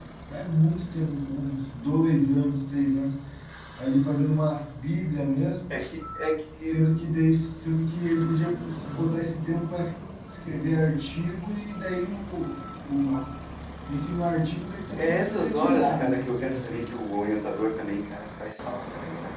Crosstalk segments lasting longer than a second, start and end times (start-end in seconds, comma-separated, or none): 15.0-16.9